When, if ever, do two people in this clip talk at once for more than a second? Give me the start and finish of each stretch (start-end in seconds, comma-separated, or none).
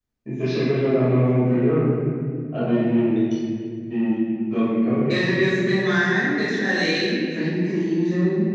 none